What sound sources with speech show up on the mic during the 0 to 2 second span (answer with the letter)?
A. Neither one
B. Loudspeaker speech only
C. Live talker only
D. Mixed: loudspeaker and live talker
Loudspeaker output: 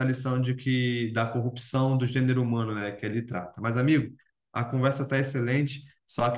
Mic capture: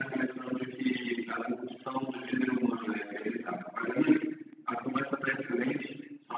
B